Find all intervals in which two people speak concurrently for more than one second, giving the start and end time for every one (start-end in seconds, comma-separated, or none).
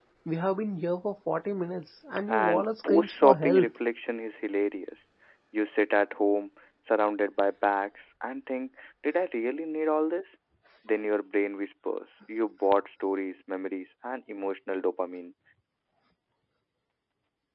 2.3-3.7